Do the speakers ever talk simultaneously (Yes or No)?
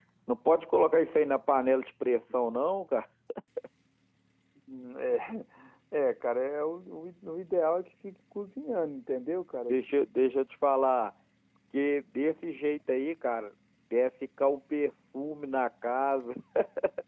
No